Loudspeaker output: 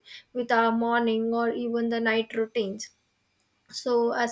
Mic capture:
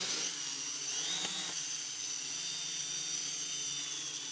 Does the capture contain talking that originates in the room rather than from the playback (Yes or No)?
No